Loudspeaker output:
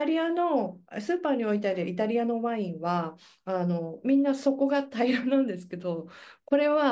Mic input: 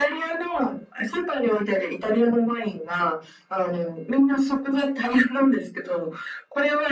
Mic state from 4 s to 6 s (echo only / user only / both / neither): echo only